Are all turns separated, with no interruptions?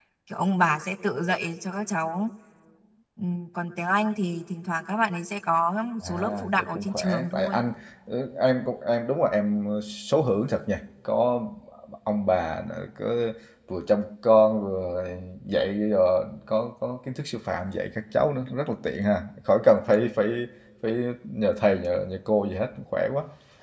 No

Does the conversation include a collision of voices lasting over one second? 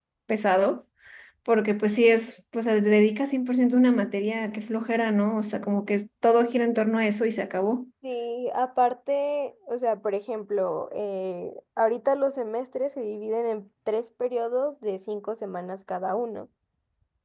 No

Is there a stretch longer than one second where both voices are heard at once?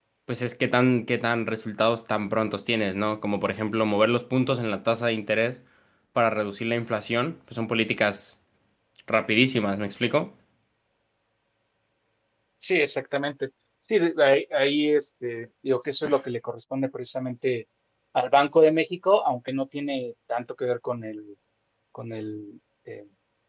No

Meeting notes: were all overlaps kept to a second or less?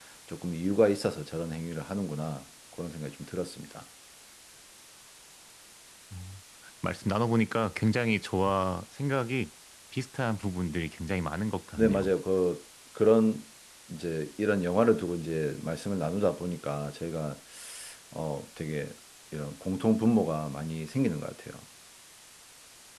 Yes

